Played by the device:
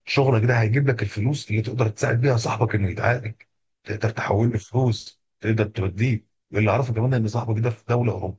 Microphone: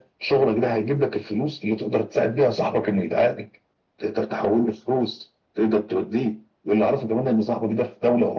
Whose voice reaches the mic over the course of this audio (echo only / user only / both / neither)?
echo only